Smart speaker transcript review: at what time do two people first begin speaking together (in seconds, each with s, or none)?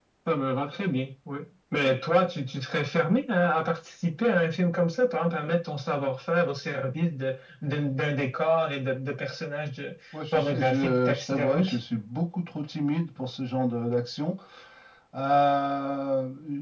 10.1 s